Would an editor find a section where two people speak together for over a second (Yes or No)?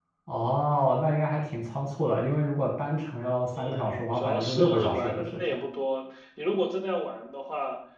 Yes